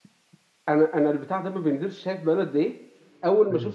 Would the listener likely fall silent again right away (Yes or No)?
Yes